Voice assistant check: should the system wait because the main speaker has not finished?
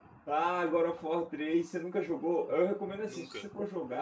Yes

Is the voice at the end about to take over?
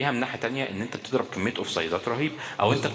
No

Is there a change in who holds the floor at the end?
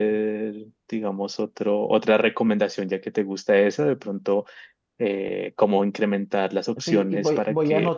Yes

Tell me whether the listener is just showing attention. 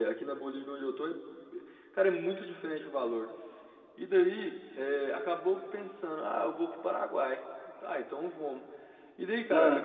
Yes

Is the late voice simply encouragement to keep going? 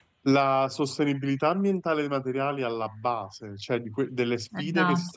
Yes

